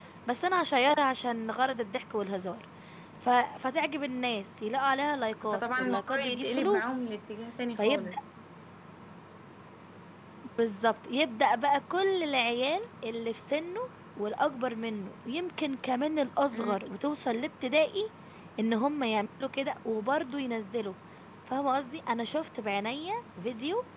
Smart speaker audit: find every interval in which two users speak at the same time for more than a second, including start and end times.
5.5-6.8

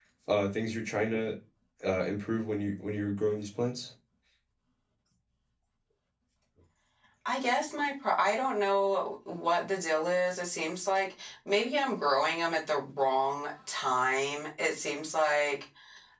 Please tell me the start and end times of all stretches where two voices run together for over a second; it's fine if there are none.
none

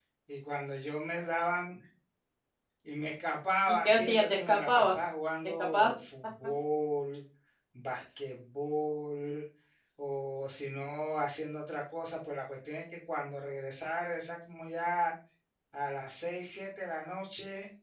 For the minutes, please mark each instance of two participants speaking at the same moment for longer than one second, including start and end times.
3.7-5.0

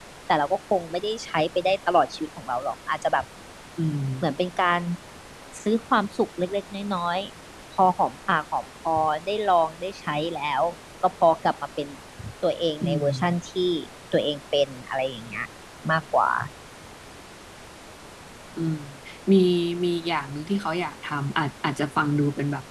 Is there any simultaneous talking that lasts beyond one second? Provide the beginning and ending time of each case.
none

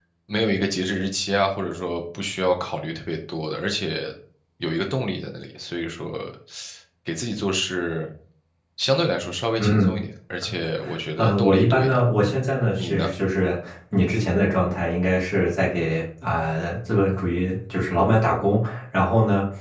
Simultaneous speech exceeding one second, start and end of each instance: 11.2-12.4

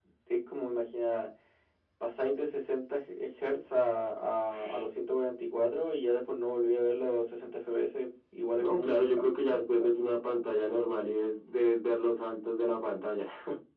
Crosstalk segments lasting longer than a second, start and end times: 8.6-9.9

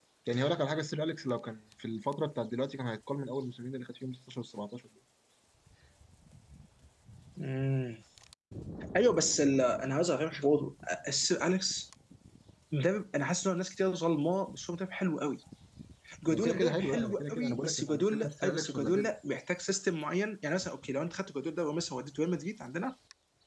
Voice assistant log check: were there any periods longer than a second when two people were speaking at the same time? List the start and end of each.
16.3-19.1

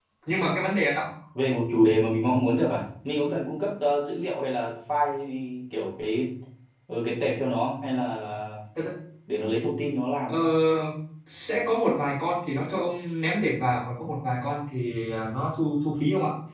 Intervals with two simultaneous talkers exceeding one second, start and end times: none

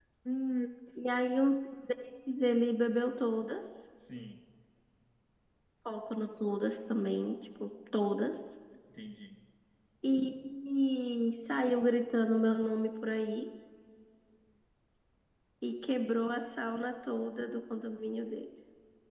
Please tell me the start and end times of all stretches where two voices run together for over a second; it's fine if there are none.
none

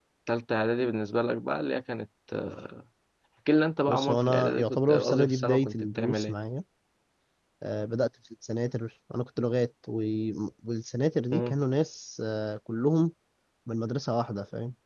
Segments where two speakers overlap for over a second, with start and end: 3.9-6.3

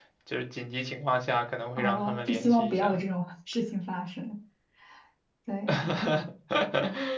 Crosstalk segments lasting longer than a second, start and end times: 1.8-3.0

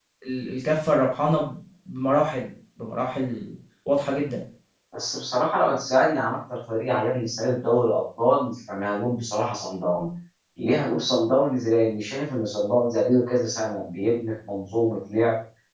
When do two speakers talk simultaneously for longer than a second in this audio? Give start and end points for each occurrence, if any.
none

